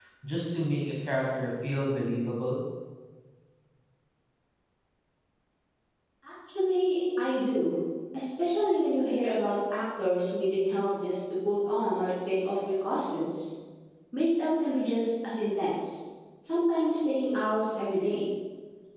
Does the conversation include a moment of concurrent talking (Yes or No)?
No